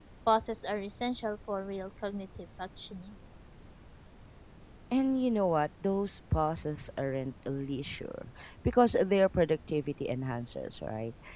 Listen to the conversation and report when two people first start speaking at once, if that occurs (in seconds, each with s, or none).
none